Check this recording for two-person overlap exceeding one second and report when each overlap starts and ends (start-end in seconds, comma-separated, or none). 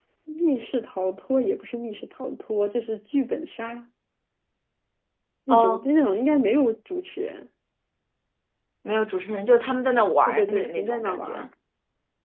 10.3-11.5